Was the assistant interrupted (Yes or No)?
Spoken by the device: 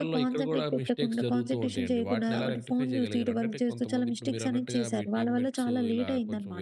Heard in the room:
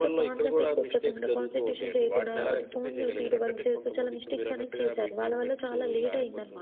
No